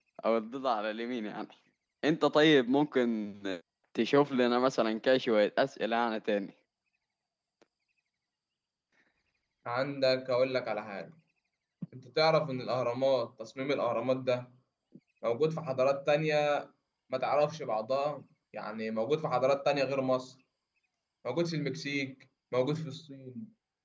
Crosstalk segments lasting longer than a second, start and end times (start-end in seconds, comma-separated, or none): none